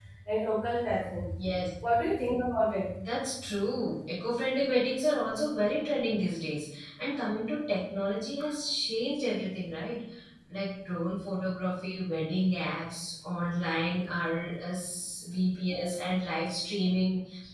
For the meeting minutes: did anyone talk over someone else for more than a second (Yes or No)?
No